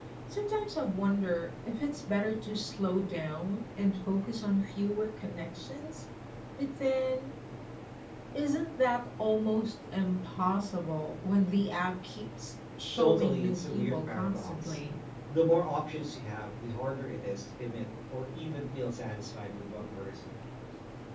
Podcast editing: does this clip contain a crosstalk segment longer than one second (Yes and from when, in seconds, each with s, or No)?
Yes, from 13.0 s